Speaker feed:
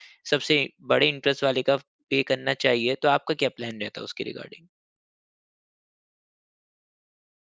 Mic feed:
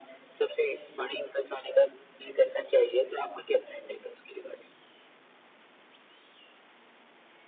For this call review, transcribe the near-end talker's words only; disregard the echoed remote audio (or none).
none